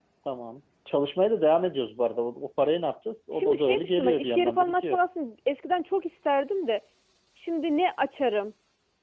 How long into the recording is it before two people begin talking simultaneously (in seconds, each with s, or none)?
3.3 s